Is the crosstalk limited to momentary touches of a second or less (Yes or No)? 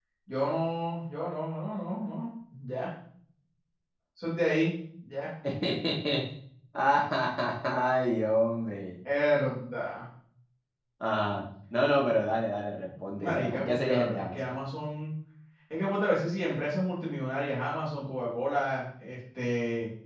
No